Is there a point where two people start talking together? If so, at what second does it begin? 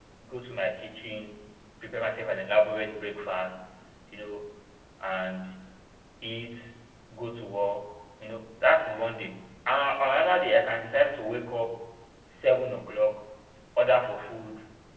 none

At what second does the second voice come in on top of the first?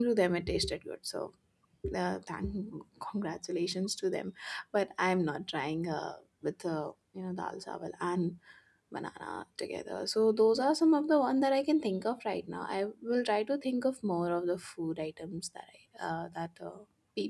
none

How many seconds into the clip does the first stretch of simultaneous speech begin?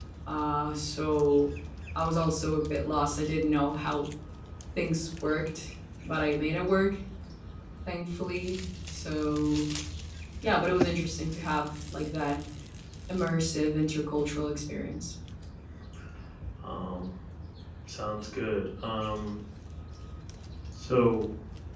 none

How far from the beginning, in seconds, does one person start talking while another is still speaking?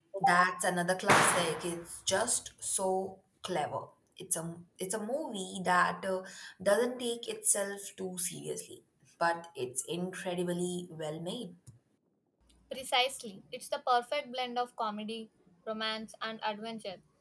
none

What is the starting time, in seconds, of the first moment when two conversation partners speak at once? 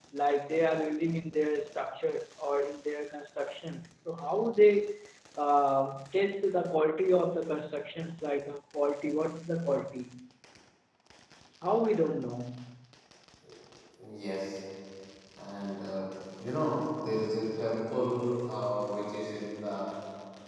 none

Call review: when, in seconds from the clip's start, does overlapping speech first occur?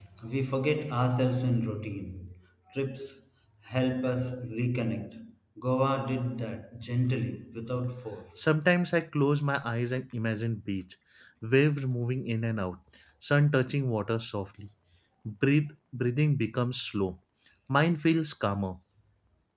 none

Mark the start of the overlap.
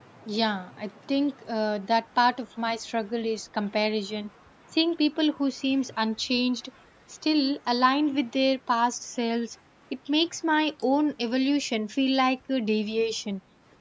none

